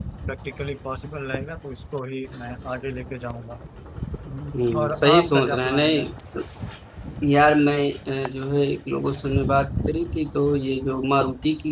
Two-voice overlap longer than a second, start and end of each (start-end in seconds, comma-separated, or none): 4.5-6.0